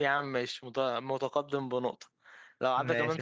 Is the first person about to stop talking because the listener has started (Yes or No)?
No